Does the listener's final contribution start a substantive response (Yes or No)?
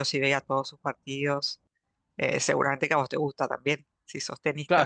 Yes